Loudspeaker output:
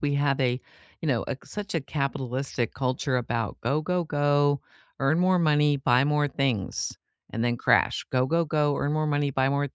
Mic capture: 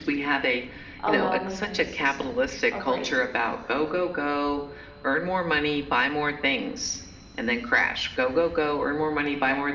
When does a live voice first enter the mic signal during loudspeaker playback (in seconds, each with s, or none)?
1.0 s